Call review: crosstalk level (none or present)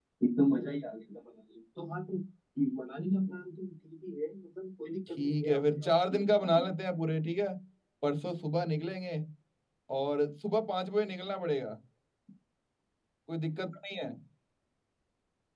present